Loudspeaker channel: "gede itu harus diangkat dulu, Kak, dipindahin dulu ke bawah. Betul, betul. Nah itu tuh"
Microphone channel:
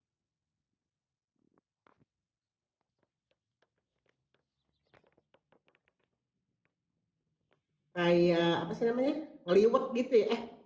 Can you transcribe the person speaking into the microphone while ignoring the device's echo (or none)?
kayak apa sih namanya ngeliwet gitu ya? Eh